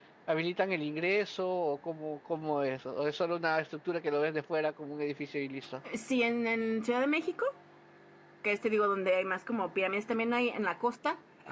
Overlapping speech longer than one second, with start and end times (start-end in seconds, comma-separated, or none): none